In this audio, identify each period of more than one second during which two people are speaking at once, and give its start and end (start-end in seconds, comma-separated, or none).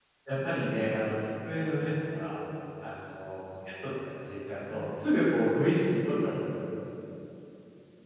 4.6-6.1